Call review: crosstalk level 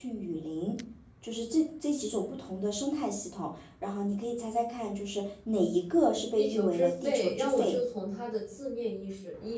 present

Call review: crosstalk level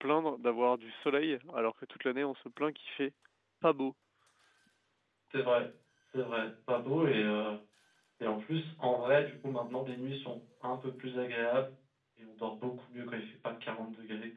none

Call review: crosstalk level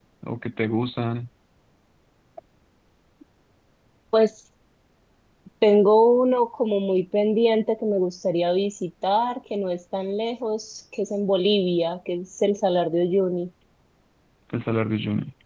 none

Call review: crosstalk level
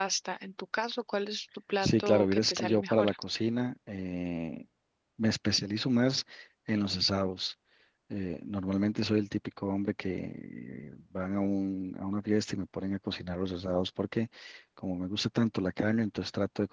present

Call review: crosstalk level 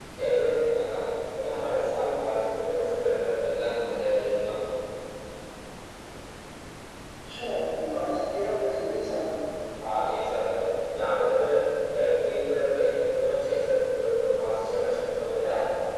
none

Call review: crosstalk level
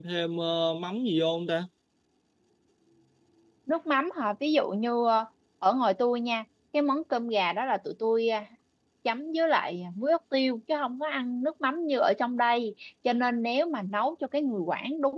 none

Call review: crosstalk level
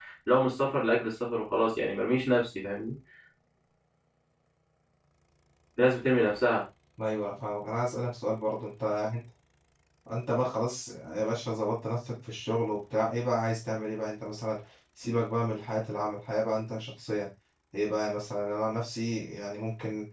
none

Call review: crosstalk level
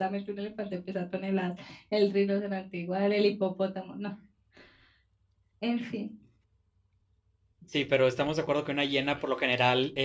none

